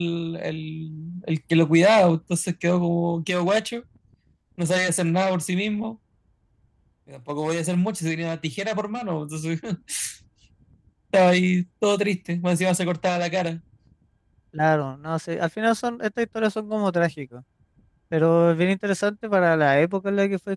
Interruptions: none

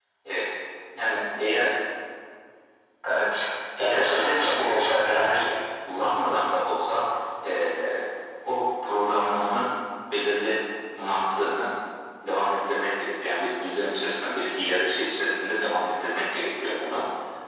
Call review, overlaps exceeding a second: present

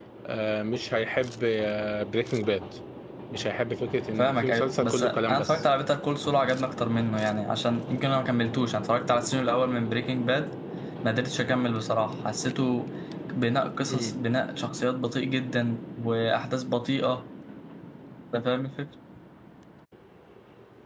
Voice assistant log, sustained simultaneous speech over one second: present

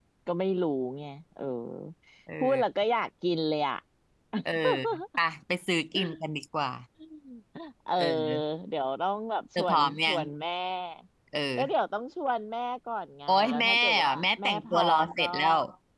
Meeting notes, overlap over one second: present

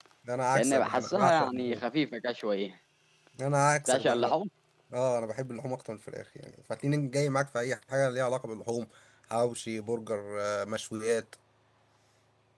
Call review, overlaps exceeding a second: present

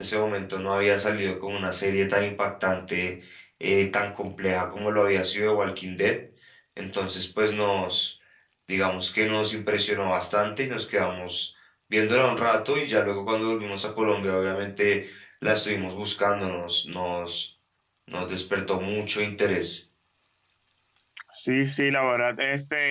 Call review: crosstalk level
none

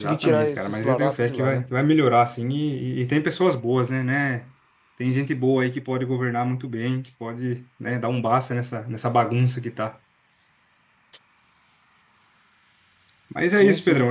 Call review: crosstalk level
present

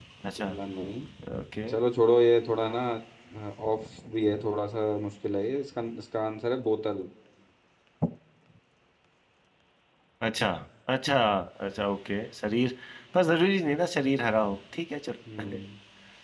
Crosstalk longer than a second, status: none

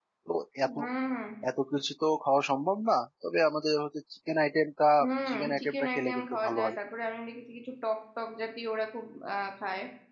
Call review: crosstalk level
present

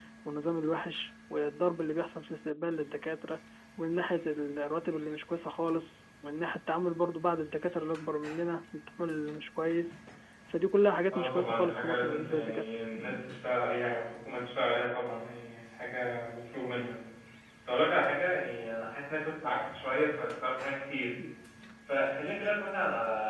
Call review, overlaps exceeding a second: present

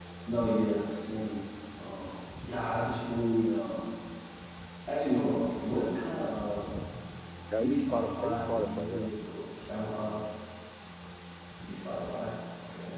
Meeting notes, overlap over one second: present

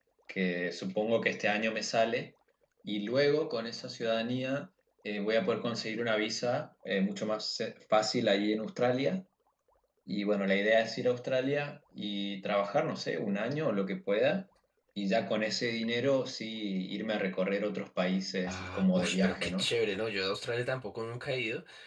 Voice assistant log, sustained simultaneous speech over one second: present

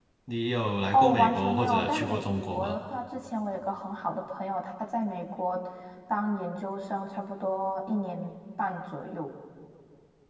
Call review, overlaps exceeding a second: present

